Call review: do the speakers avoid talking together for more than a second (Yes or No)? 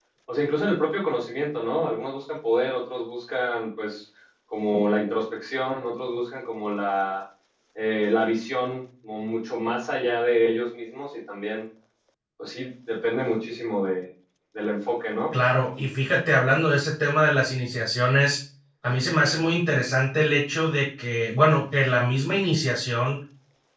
Yes